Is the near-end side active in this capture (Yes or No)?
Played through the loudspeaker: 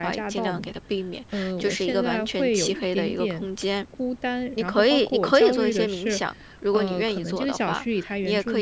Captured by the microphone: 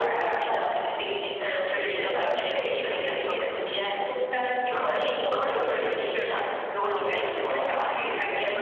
No